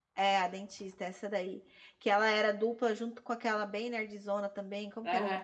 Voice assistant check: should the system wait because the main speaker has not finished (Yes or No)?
No